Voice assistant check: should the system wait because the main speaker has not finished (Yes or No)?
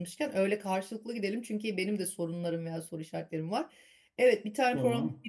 Yes